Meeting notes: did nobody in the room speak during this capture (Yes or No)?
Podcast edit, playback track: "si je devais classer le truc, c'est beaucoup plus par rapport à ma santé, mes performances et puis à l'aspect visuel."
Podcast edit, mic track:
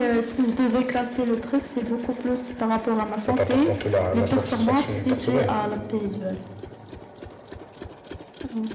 No